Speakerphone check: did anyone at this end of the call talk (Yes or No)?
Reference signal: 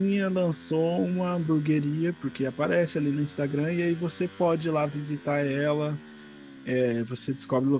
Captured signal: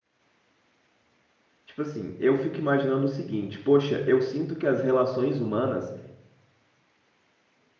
Yes